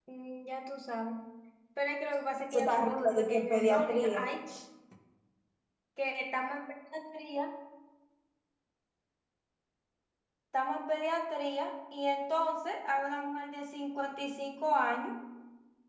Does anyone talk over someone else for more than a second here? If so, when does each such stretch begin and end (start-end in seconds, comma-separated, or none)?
2.5-4.2